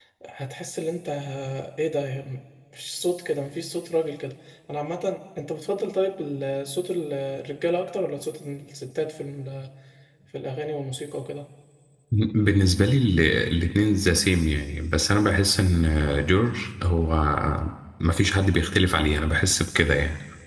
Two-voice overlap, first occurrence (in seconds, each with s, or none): none